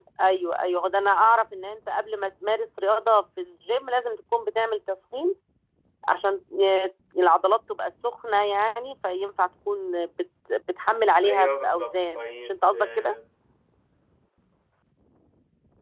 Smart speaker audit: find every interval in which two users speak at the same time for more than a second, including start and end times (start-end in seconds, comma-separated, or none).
11.2-13.1